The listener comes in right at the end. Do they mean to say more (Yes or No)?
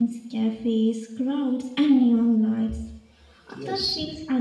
No